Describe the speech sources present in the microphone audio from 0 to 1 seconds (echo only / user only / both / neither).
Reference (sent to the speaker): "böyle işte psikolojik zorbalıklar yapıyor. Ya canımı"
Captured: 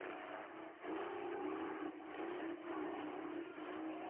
neither